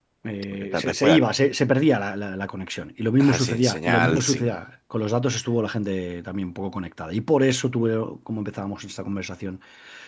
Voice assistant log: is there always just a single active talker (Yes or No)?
No